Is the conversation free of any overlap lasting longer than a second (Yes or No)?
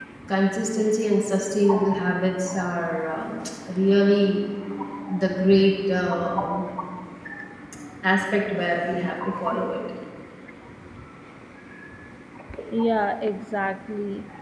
Yes